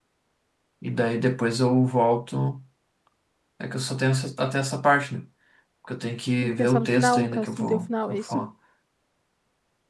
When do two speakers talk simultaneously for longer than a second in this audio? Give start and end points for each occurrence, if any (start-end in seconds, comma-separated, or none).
6.4-8.4